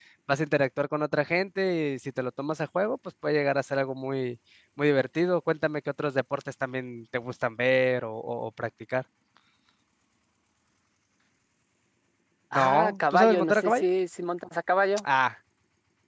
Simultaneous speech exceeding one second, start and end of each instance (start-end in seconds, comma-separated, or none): 12.5-13.9